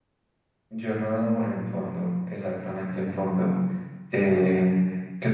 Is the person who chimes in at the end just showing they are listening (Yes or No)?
Yes